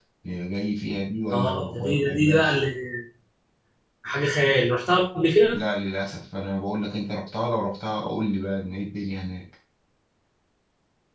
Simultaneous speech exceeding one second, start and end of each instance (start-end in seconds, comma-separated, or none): 1.3-2.6